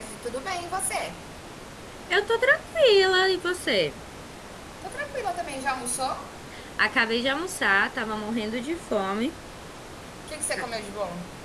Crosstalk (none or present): none